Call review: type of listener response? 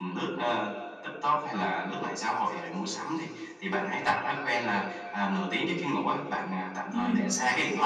listening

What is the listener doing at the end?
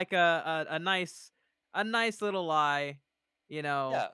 taking over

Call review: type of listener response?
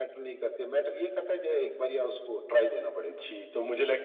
taking over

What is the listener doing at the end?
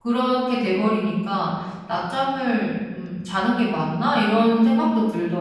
taking over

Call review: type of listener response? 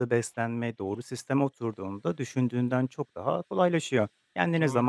listening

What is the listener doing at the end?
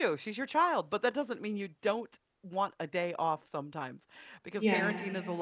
listening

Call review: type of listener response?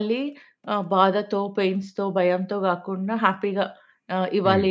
listening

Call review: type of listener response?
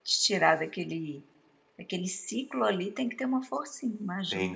taking over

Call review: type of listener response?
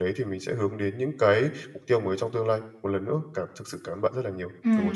taking over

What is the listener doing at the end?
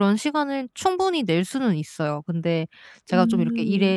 listening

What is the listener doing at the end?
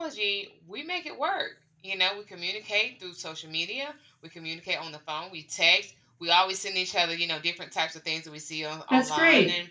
listening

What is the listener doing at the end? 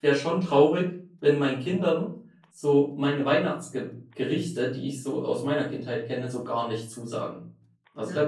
listening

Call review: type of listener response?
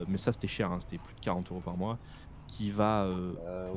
listening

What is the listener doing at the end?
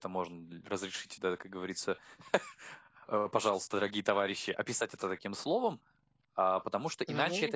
listening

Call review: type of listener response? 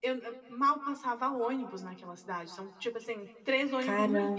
listening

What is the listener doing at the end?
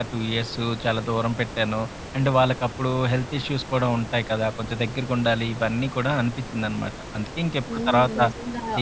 taking over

